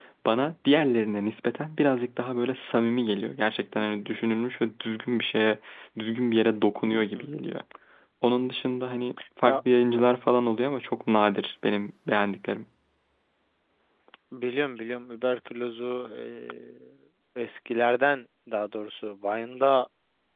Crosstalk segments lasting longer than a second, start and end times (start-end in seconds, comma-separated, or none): none